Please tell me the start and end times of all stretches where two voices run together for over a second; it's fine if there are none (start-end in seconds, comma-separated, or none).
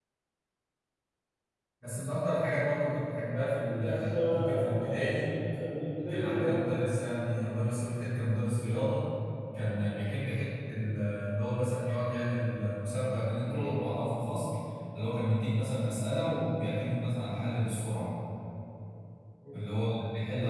3.8-5.3